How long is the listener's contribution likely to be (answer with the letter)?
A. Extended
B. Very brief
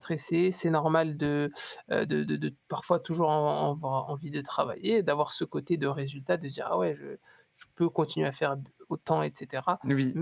B